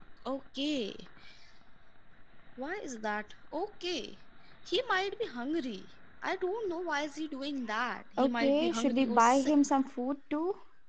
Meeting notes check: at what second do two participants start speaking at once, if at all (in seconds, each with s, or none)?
8.2 s